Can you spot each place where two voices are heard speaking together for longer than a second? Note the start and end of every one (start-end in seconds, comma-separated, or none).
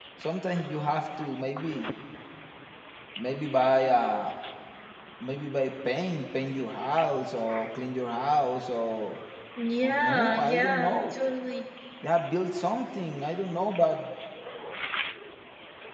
9.8-11.2